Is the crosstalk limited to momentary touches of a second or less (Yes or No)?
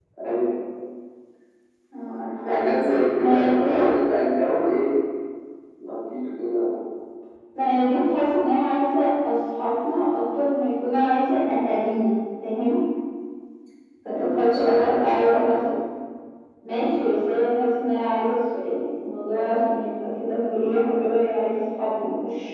No